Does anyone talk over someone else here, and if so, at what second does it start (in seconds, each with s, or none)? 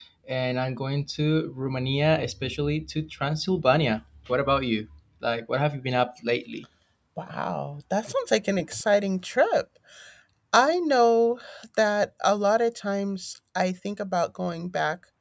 none